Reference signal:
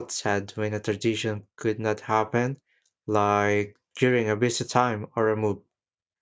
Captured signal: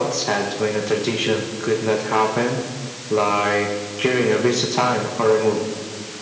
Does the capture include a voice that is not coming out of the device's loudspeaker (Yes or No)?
No